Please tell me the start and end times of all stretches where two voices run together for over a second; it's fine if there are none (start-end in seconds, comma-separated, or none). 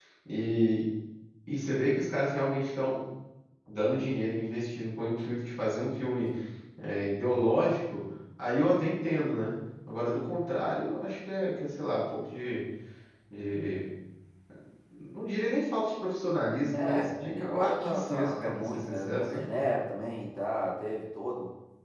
16.7-19.5